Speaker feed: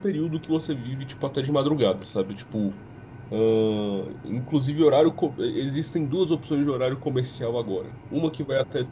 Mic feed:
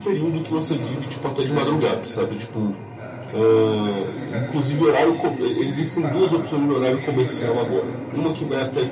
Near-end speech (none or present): present